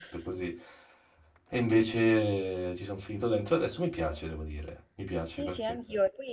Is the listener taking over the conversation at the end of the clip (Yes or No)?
Yes